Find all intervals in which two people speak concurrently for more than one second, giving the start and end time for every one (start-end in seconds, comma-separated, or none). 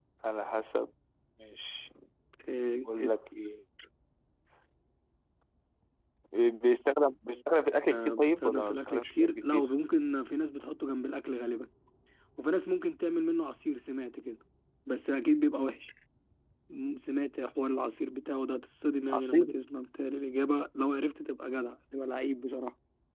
7.9-9.7